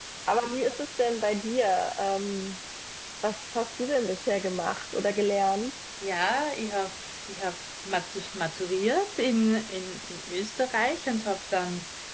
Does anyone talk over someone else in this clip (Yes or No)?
No